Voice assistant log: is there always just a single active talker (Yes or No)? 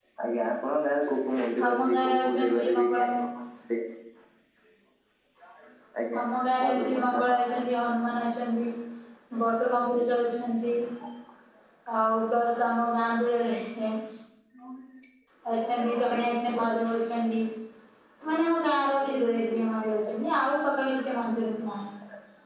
No